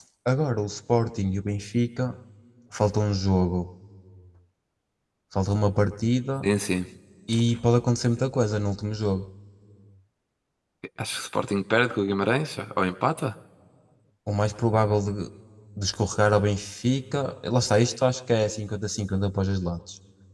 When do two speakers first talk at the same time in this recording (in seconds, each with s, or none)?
none